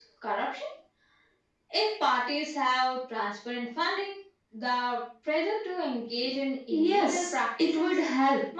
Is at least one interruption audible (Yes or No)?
Yes